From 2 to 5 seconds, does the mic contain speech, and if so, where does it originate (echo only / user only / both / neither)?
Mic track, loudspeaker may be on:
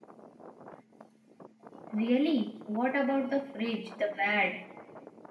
user only